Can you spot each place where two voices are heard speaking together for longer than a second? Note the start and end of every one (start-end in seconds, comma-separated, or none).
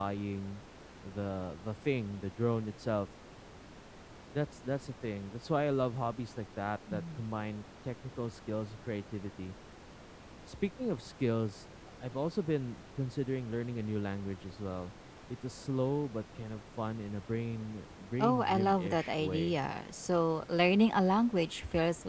18.2-19.6